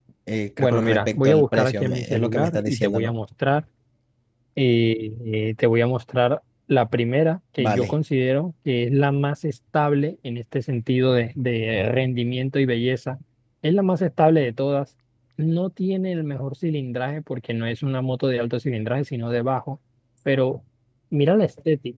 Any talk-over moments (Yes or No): Yes